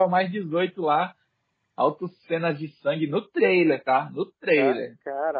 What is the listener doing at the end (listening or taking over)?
taking over